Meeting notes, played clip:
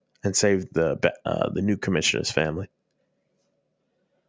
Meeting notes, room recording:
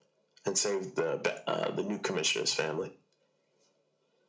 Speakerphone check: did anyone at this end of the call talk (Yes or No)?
No